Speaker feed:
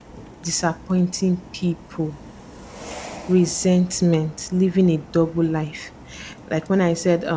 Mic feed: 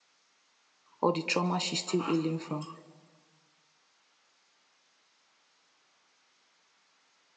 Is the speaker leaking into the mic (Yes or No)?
No